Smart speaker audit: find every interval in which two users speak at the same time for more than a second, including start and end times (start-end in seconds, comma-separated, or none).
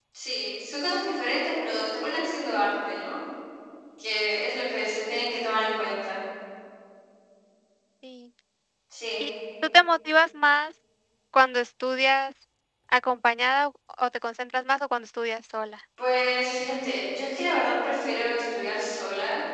none